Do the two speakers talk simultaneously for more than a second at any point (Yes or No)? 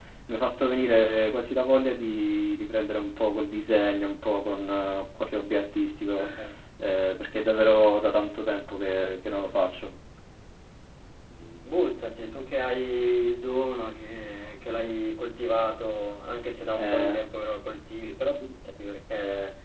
No